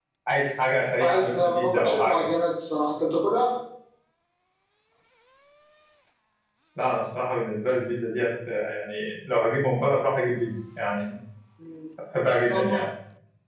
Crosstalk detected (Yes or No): Yes